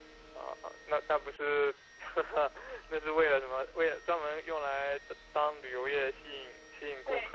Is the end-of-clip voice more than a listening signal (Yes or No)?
No